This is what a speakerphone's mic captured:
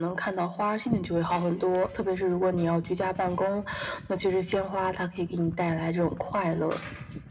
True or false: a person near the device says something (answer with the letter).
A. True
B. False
B